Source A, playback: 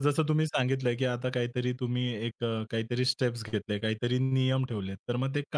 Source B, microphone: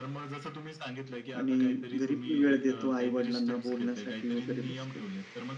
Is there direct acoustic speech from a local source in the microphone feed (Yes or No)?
Yes